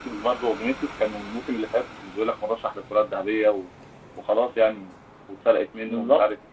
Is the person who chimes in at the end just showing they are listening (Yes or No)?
Yes